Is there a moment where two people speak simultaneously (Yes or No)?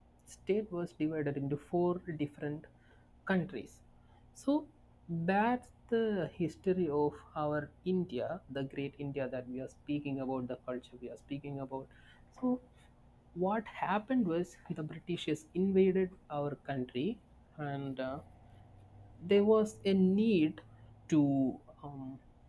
No